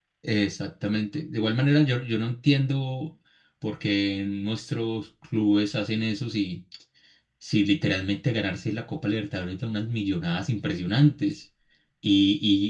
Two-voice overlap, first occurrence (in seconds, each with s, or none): none